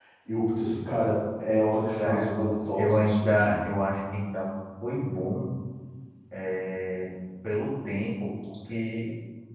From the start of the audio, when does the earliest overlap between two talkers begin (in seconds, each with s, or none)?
1.8 s